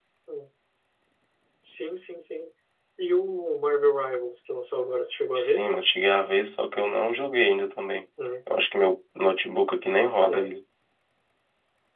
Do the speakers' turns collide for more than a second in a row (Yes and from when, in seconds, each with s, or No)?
No